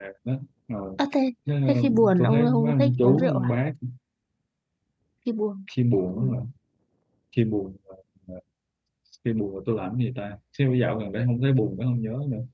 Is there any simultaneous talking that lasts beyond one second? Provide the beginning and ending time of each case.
1.7-3.5

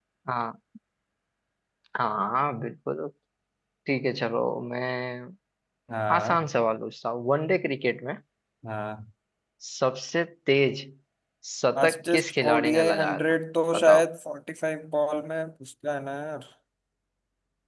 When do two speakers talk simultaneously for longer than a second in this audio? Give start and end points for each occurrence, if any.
11.8-13.2

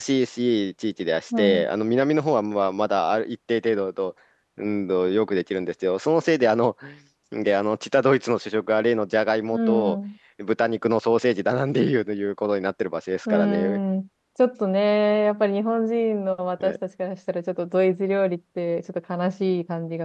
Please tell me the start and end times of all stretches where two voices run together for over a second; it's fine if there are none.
none

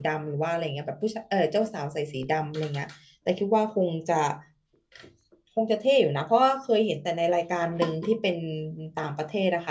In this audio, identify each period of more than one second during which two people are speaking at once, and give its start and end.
none

